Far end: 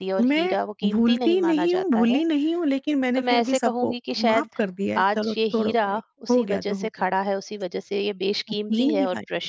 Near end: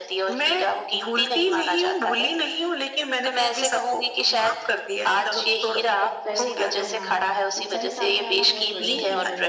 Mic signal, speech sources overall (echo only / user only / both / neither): both